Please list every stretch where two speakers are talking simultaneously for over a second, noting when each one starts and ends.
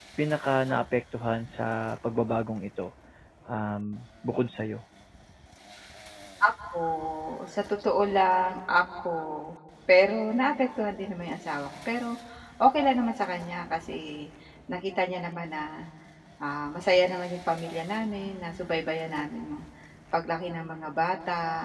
none

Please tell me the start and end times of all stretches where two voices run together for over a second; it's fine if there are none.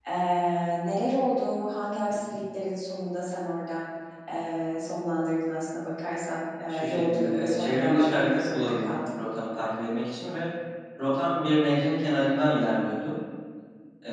6.7-9.2

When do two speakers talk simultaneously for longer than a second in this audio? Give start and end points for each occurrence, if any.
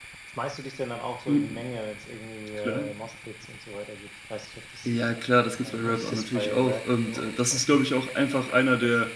5.6-7.9

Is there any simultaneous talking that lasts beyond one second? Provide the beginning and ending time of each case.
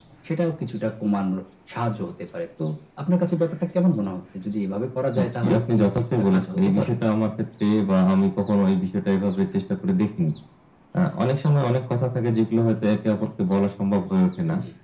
5.2-6.9

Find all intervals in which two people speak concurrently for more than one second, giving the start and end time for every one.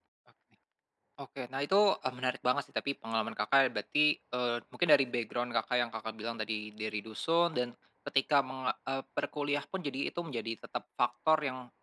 none

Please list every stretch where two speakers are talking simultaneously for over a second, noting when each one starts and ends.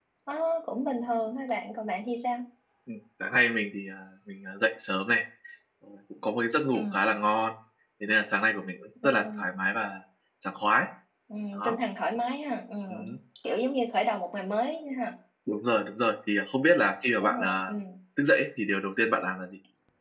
none

